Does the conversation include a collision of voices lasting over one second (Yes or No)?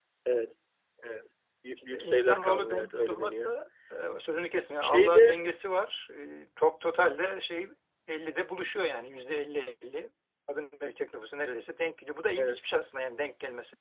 Yes